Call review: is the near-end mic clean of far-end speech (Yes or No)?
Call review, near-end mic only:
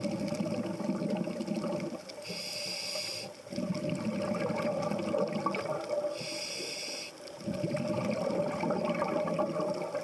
Yes